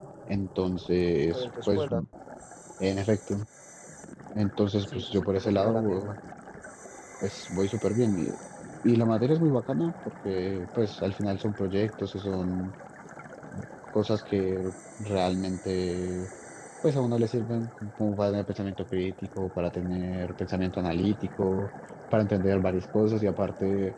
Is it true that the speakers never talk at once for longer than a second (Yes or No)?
No